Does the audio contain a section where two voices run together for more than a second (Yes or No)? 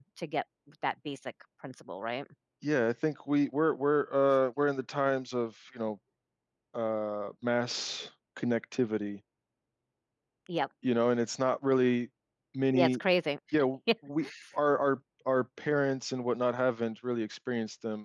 No